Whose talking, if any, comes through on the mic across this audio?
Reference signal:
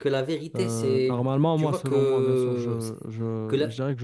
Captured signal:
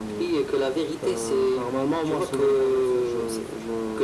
echo only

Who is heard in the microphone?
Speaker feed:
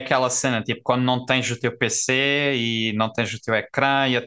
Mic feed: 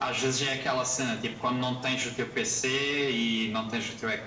echo only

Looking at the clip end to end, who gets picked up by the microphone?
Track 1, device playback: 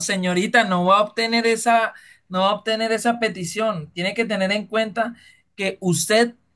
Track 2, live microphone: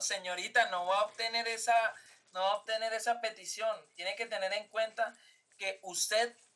echo only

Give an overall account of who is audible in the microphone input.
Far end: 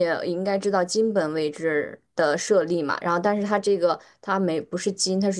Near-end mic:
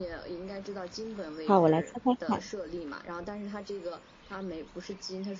both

